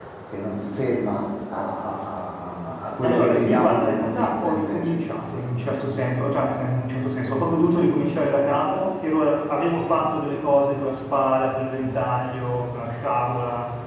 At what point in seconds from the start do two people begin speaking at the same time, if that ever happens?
3.0 s

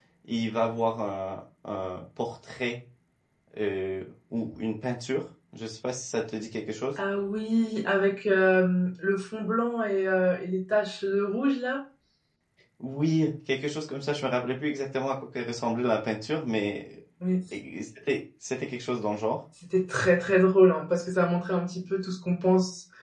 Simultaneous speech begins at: none

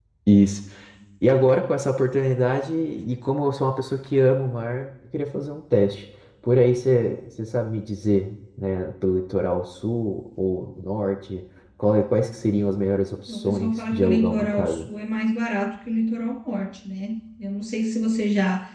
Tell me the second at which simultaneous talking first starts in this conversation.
13.3 s

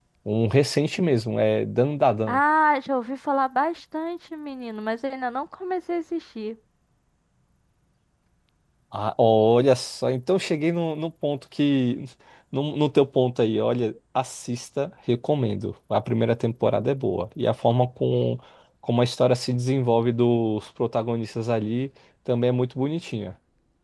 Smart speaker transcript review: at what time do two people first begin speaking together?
none

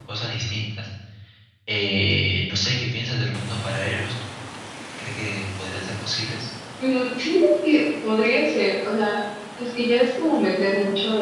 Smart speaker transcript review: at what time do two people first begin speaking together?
none

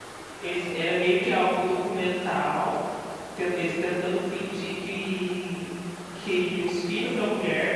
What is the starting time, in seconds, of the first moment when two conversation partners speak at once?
none

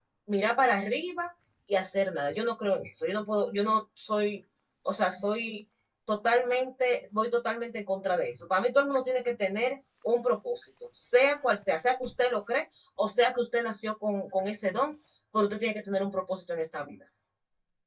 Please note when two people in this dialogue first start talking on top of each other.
none

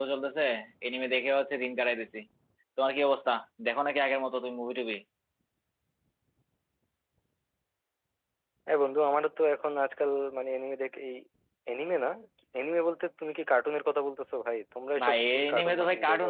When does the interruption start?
15.0 s

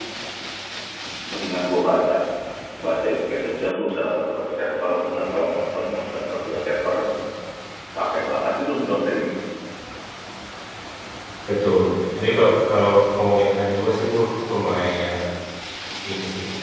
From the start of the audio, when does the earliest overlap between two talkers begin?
none

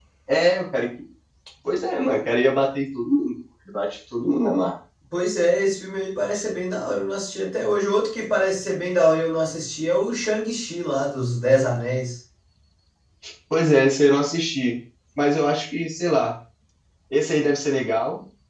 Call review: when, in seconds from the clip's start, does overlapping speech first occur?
none

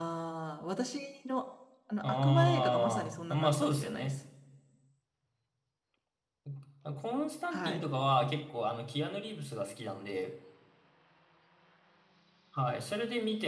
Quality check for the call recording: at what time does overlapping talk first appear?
2.0 s

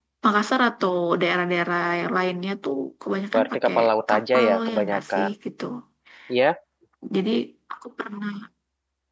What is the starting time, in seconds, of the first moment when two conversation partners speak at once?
3.3 s

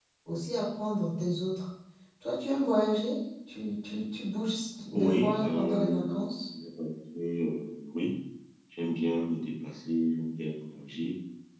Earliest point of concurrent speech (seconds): 5.0 s

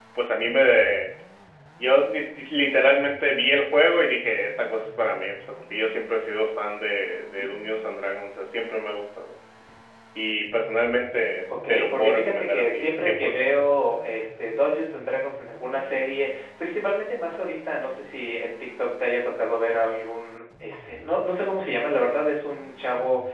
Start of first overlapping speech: 11.5 s

